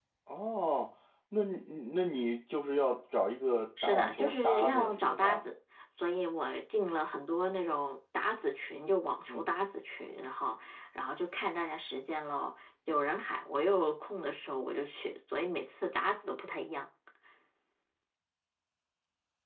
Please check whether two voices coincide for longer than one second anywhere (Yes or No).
Yes